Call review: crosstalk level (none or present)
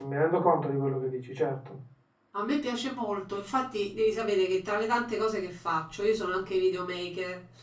none